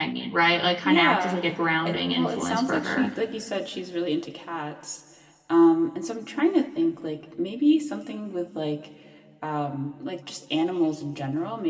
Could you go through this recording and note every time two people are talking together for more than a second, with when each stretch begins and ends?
1.9-3.1

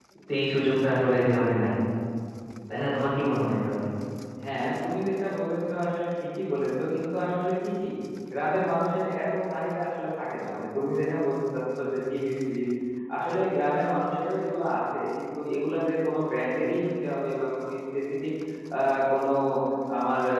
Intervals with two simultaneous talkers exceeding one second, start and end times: none

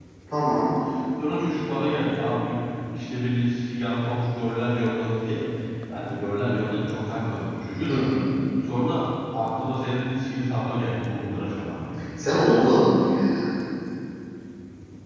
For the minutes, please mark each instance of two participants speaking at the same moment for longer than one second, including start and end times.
none

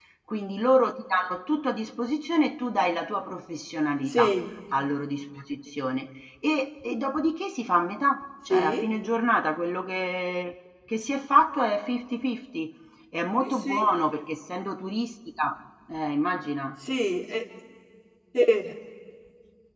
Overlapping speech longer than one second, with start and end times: none

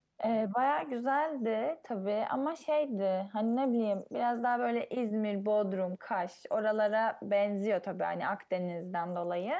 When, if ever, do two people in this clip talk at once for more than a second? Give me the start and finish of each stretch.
none

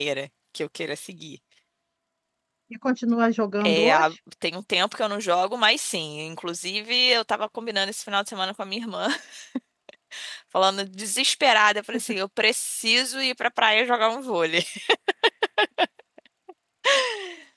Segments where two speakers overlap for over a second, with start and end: none

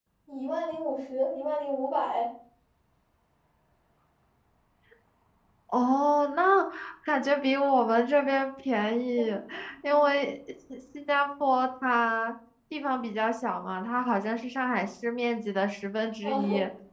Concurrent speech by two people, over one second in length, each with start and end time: none

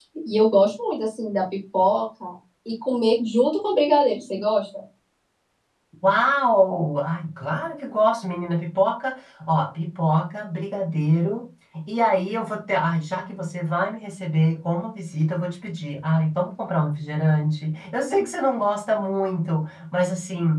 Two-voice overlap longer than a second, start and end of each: none

